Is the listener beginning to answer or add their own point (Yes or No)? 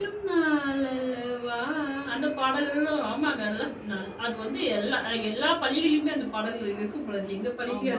Yes